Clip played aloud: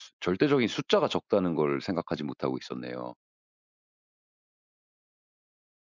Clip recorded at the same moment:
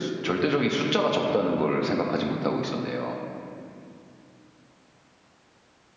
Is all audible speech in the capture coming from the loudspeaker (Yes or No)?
Yes